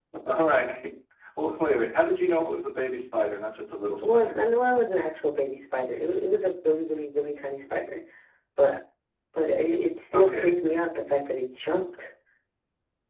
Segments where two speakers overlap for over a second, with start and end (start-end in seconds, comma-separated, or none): none